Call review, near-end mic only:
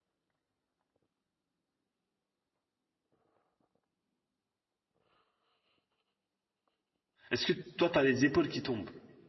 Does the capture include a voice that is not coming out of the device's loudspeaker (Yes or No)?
Yes